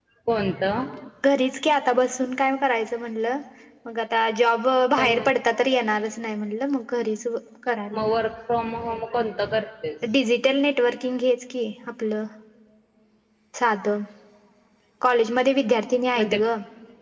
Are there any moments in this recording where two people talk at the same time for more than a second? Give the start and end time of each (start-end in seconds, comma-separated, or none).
none